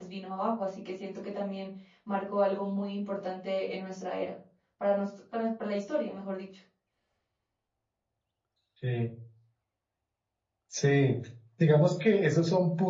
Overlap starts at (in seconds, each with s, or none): none